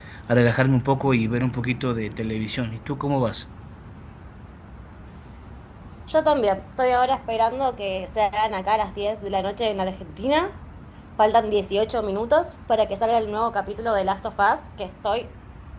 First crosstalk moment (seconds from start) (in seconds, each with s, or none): none